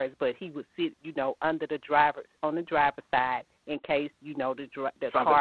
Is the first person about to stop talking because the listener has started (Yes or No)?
Yes